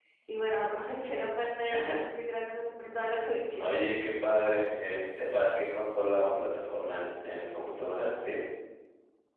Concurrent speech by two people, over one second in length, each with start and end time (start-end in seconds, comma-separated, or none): none